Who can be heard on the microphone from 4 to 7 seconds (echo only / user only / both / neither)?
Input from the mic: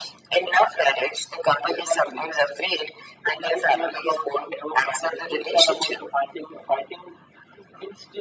echo only